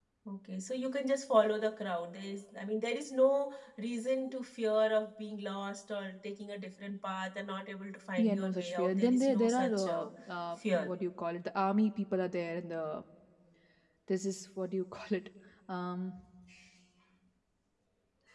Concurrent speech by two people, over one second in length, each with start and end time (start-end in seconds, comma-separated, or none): 8.2-10.1